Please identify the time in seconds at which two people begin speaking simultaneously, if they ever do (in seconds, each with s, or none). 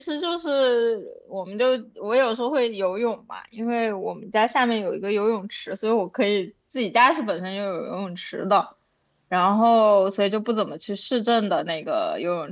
none